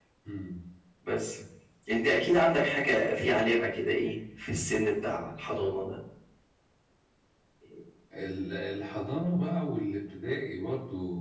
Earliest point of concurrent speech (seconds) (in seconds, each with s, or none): none